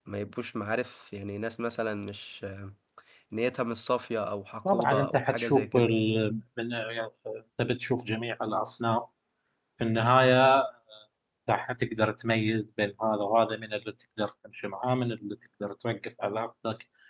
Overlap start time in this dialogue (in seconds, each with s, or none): 4.6 s